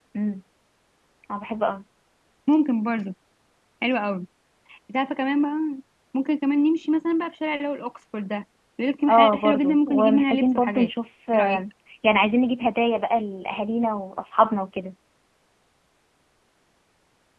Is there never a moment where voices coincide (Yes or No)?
No